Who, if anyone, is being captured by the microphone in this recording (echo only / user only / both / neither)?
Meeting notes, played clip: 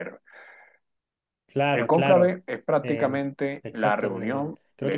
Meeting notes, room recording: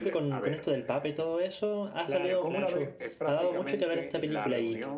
both